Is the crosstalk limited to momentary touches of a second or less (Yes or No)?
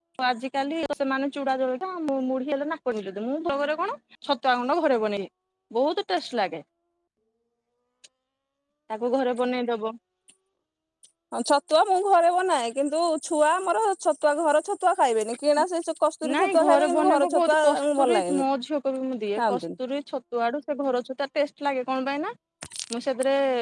No